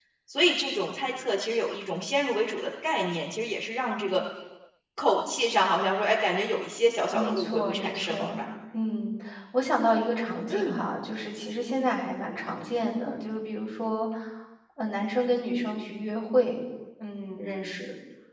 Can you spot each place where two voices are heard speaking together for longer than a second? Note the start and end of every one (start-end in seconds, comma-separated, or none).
7.1-8.4